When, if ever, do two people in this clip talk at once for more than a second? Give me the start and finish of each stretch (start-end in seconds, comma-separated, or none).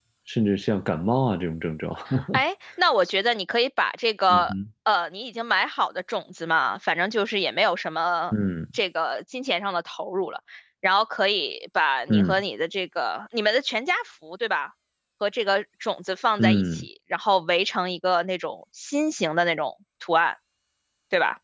none